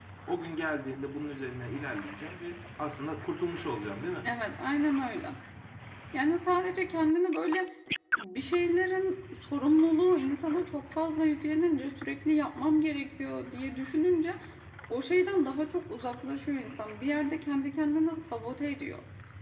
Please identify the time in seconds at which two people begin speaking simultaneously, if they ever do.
none

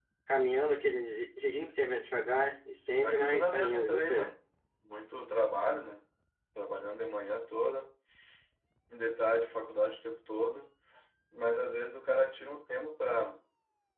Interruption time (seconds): 3 s

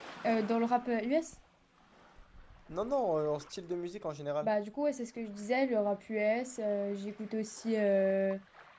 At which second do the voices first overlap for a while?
none

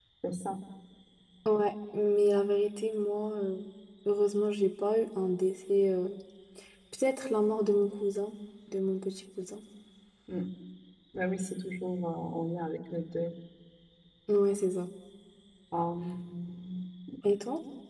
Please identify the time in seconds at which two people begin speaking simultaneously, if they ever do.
none

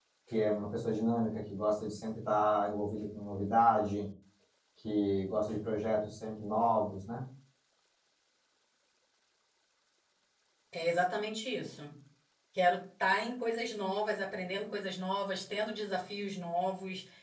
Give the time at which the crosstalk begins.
none

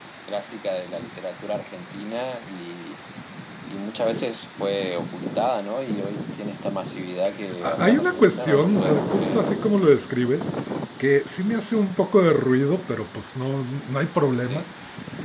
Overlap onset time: 8 s

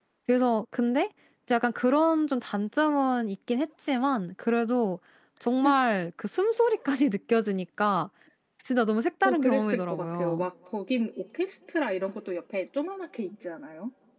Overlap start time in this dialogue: 9 s

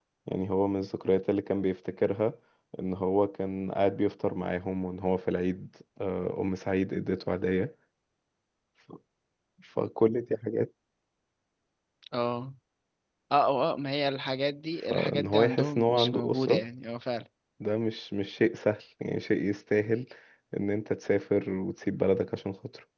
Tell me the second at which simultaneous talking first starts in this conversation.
15 s

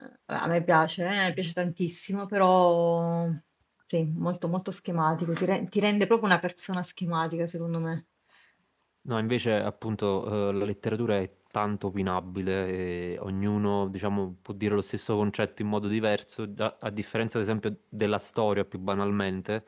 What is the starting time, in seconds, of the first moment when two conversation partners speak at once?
none

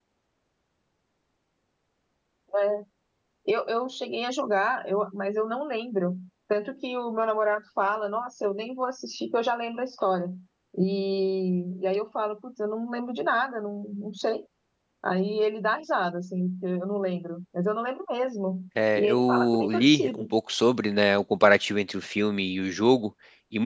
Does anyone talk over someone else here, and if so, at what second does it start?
19 s

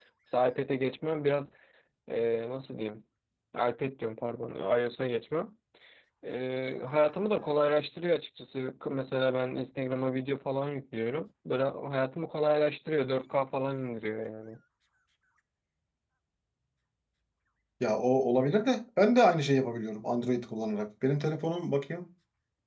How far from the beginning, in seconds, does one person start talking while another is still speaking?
none

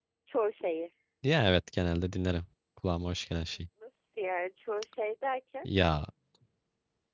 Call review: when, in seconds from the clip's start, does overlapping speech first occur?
none

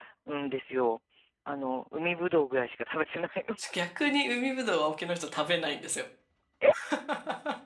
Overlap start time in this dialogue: none

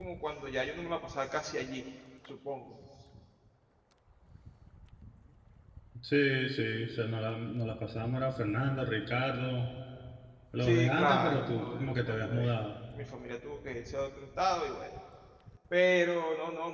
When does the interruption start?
11 s

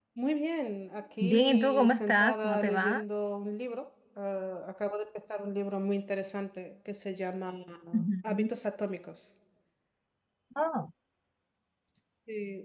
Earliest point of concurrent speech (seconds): 1 s

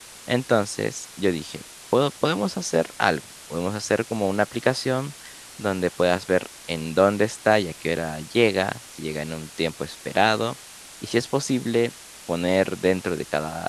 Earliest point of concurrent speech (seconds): none

